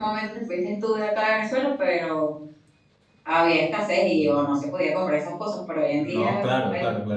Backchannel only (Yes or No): No